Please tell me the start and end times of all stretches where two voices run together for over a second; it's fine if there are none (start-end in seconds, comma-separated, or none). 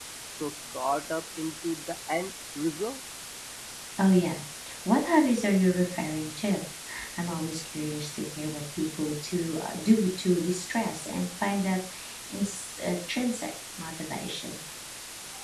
none